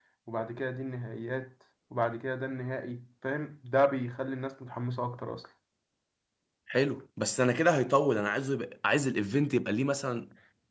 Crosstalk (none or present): none